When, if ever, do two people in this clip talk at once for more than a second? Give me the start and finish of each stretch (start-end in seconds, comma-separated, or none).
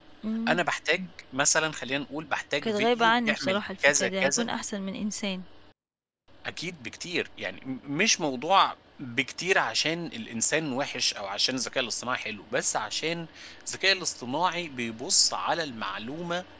2.6-4.5